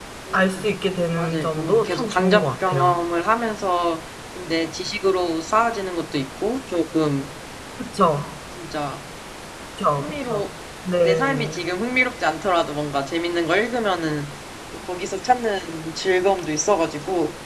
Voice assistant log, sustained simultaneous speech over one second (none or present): present